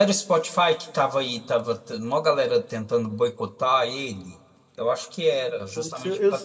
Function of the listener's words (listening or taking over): taking over